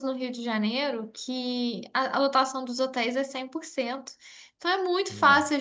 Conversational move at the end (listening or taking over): listening